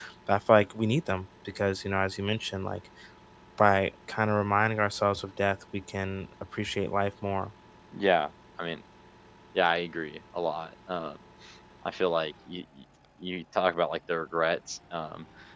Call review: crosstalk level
none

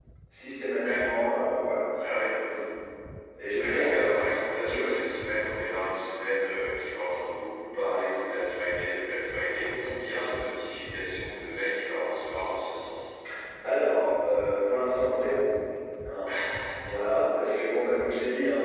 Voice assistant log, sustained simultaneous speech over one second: none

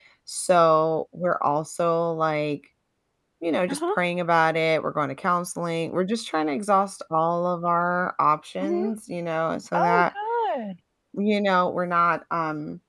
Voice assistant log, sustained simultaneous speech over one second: none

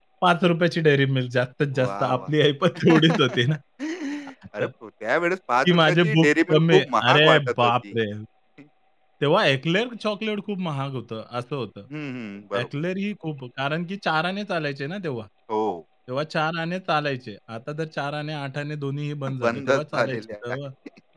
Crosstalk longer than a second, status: present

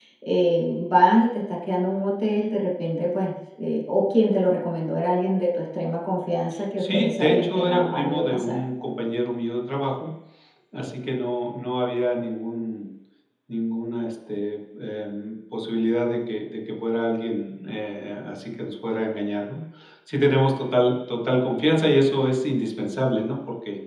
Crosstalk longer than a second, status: present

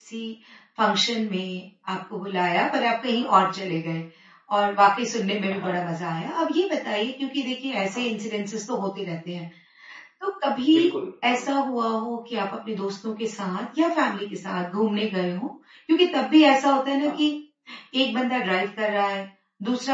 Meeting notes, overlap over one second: none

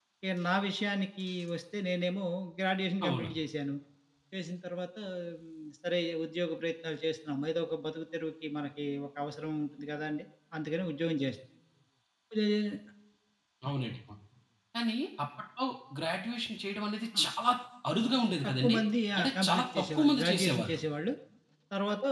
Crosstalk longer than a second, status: present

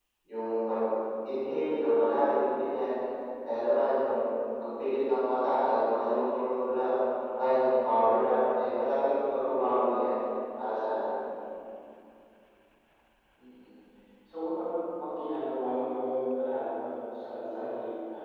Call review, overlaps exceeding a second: none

